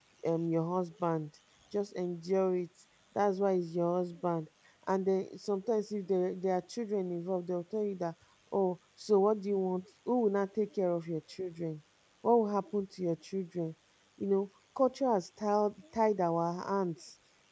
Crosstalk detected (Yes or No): No